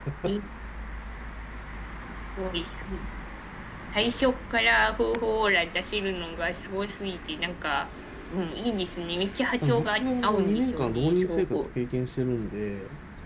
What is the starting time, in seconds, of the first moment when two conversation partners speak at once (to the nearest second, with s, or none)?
10 s